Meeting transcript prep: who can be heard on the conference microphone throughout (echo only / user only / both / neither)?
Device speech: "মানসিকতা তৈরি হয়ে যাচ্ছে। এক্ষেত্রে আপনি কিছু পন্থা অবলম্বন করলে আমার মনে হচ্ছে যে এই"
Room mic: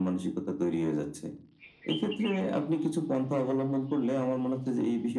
echo only